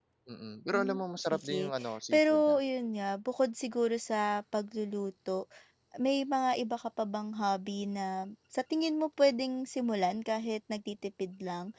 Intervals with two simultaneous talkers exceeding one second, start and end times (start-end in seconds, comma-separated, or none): 0.7-2.6